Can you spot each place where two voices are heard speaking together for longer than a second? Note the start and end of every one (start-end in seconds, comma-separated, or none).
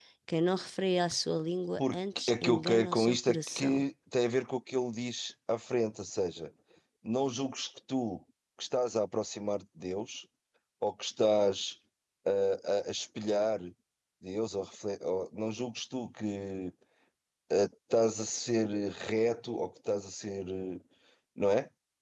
1.8-3.8